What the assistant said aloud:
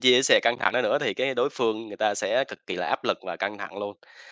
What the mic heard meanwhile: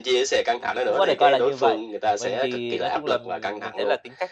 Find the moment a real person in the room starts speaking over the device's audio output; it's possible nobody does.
1 s

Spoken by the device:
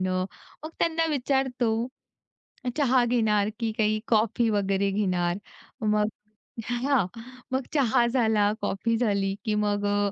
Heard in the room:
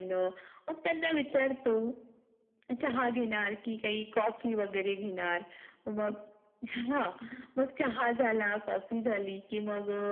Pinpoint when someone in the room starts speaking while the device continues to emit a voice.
none

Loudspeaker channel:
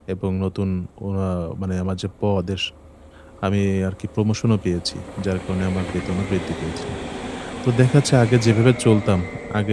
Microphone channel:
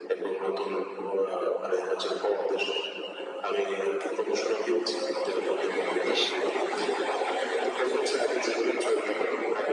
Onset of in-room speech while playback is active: 6 s

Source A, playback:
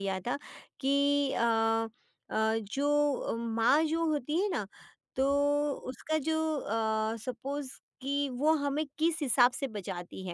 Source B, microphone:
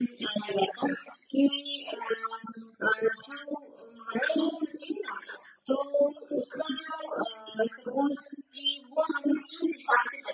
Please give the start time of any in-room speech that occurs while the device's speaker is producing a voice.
none

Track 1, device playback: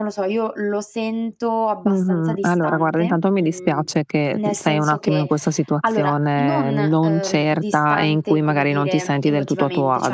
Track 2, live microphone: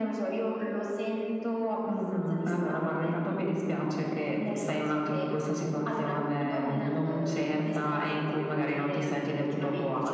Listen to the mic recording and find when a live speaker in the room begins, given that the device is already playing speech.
none

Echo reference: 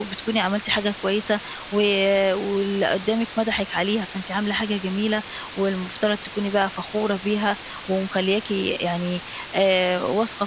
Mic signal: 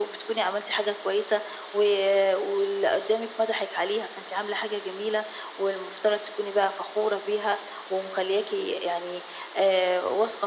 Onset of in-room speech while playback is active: none

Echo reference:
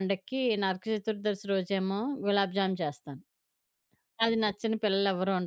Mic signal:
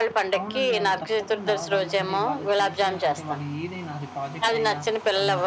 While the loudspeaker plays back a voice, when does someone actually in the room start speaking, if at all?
0 s

